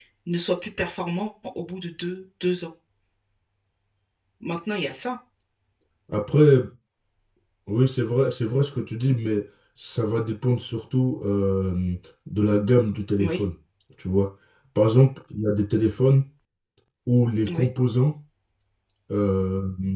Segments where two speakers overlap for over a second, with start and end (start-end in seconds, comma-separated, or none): none